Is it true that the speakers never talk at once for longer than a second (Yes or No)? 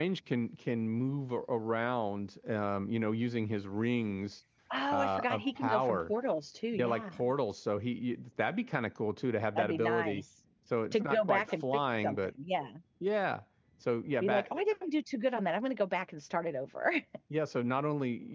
No